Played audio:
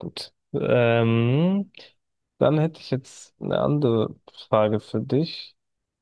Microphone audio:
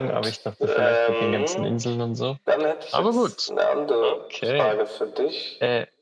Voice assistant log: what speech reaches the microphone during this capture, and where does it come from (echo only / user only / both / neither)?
both